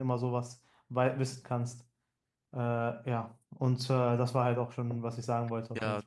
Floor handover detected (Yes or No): Yes